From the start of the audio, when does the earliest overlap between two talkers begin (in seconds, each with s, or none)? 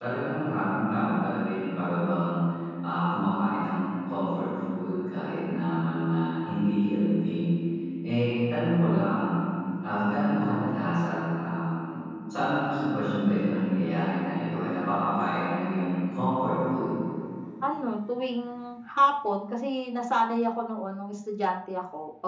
none